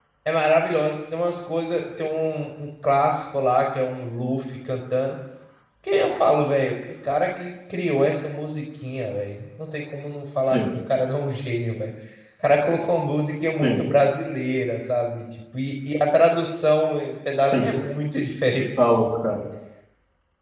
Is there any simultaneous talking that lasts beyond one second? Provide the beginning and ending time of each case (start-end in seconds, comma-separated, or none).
none